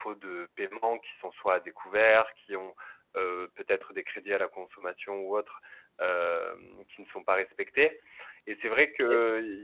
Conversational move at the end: listening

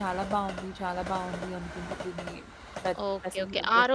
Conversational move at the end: taking over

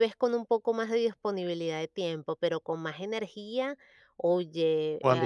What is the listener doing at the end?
listening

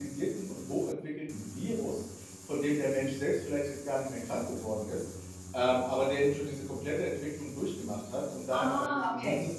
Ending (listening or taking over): listening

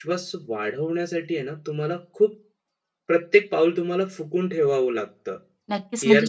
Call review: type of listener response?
taking over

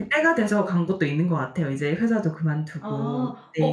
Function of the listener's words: taking over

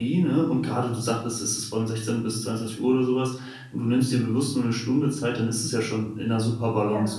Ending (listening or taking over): listening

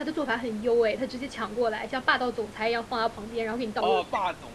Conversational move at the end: taking over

